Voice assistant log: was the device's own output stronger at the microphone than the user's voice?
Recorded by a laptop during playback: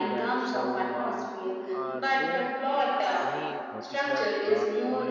Yes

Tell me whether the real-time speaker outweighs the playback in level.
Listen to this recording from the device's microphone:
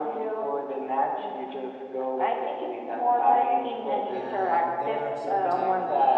No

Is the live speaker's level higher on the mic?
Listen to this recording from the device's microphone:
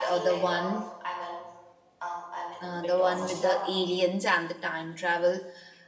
Yes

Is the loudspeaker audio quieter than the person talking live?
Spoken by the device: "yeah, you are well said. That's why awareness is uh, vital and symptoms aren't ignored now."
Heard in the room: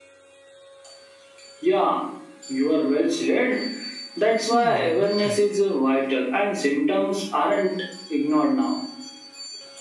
No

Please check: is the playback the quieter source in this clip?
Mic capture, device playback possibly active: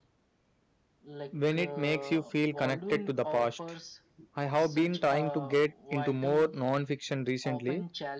Yes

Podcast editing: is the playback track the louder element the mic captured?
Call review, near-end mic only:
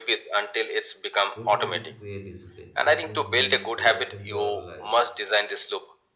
Yes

